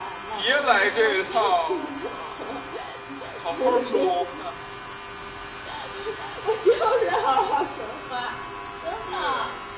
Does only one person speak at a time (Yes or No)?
No